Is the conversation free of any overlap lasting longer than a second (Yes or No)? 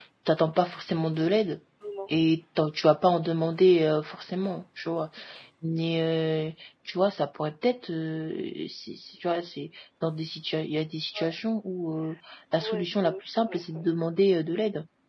No